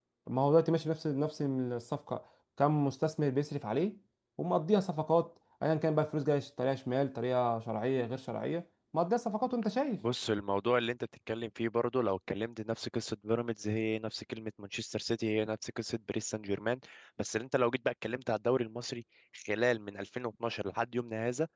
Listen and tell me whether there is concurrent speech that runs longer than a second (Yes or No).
No